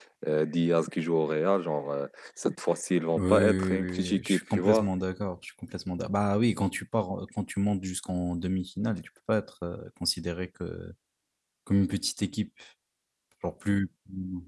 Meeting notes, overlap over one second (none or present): present